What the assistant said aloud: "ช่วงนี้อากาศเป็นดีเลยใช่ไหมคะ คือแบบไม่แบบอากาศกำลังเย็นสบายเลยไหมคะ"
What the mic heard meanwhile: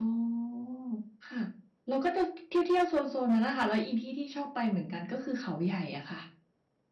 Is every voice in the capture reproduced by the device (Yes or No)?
No